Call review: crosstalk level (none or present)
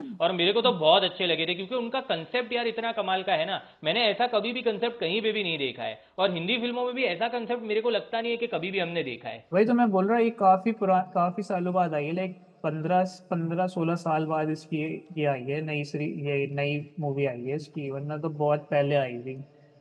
none